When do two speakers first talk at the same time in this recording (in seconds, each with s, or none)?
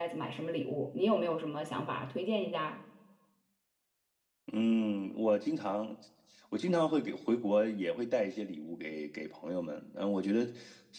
none